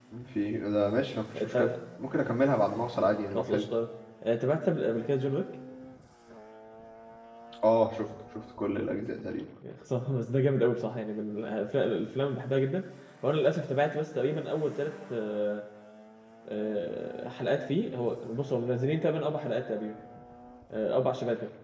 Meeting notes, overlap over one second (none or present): none